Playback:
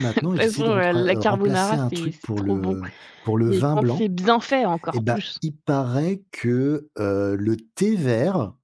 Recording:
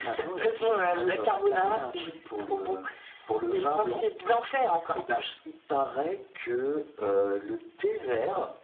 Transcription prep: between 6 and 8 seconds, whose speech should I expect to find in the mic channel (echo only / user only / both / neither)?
echo only